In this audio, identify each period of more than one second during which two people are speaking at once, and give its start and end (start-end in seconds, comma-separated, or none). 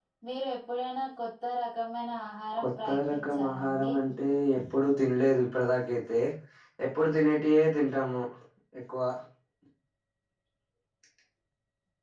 2.6-3.9